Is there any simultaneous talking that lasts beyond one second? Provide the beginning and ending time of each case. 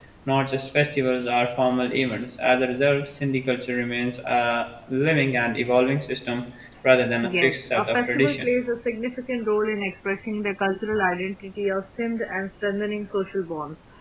7.2-8.5

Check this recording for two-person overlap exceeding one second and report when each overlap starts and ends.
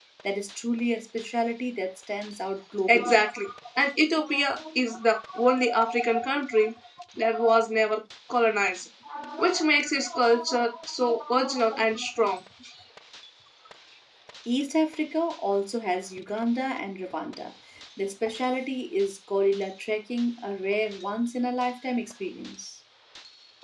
none

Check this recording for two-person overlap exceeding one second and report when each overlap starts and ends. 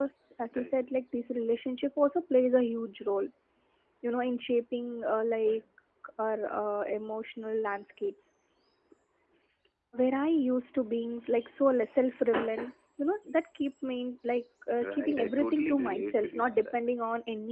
14.8-16.8

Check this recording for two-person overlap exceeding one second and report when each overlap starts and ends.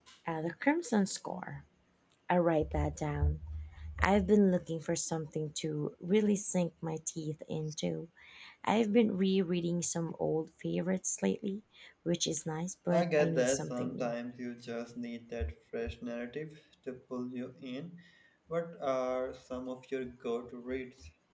12.9-14.1

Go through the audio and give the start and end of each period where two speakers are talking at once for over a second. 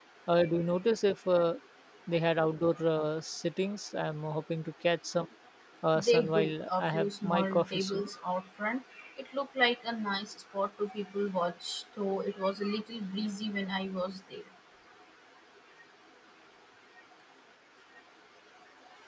6.0-8.1

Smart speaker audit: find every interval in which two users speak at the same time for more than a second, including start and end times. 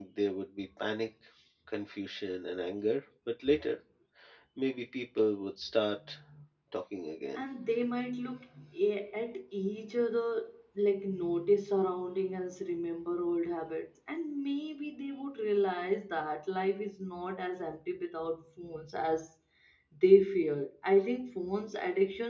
none

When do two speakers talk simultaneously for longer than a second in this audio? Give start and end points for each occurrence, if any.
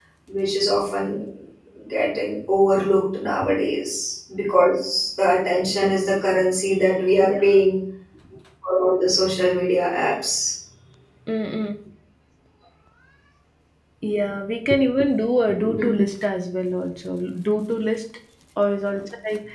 none

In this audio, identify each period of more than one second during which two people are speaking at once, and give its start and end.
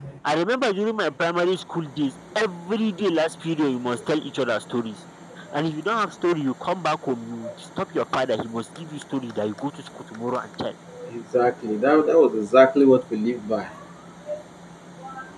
none

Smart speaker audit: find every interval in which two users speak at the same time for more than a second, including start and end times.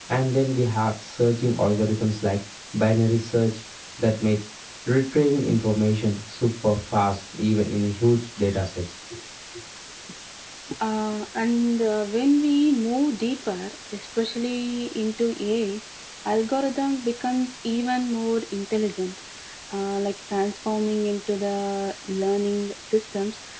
none

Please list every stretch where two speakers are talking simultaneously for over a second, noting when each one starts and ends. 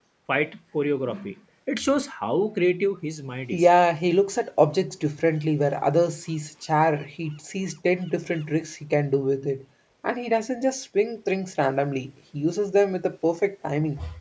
none

